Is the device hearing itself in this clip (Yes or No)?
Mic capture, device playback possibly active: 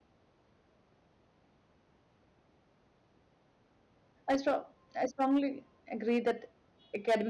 No